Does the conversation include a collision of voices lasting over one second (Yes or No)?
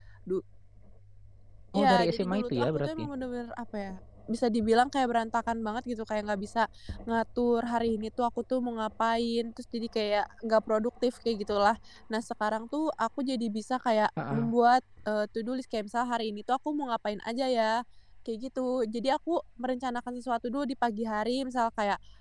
Yes